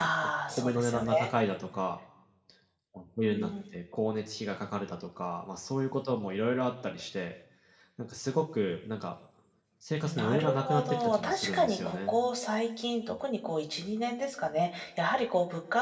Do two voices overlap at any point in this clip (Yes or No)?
Yes